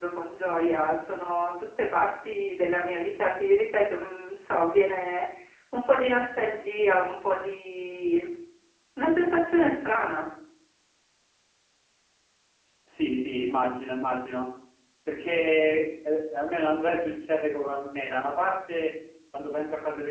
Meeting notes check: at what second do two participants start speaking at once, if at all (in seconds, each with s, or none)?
none